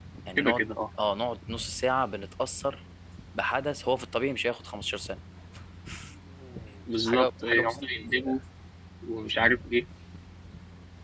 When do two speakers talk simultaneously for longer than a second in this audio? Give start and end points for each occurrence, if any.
7.1-8.4

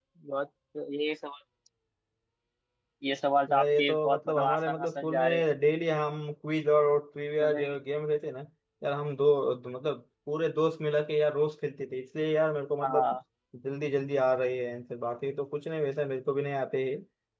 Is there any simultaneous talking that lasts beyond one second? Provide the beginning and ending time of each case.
3.5-5.4

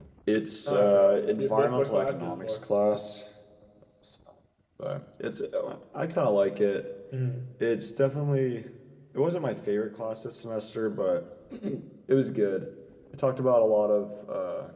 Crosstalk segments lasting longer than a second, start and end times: 0.7-2.6

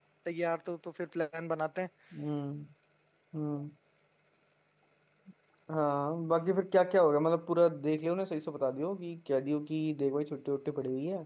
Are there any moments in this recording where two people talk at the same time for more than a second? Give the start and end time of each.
none

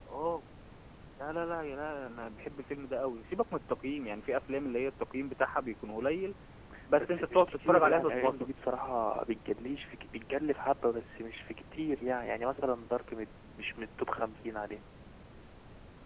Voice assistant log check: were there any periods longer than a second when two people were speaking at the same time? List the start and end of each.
7.0-8.5

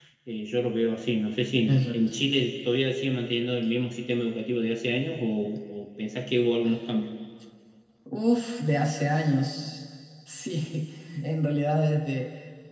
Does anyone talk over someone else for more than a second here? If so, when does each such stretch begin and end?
none

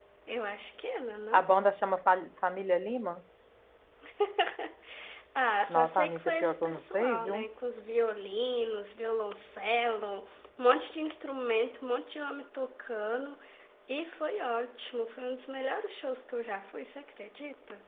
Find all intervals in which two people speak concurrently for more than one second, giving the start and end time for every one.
5.7-7.4

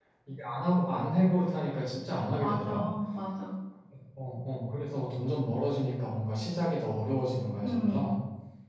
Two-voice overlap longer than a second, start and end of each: none

